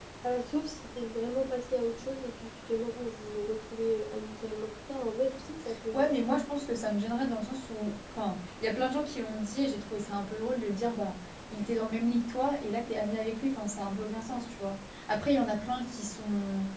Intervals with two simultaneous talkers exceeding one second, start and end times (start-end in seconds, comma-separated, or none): none